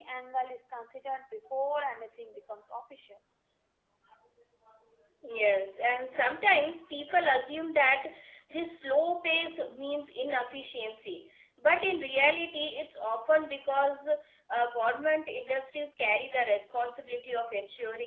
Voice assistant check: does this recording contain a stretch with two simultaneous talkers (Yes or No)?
No